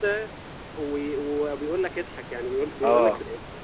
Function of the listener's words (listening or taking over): listening